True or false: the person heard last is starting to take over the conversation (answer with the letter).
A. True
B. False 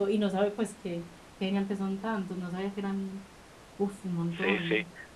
A